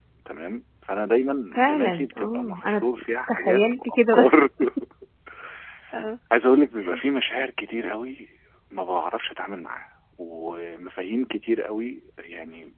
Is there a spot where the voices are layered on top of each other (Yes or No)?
Yes